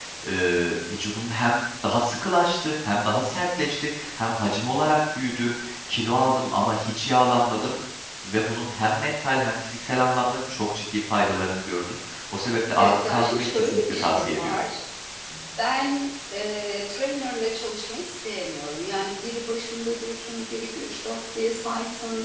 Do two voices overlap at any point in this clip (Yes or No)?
Yes